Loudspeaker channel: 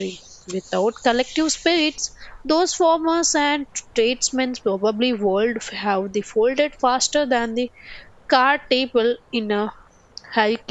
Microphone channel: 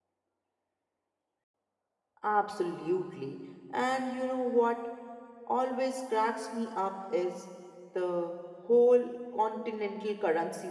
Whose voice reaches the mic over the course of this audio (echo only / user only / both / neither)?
user only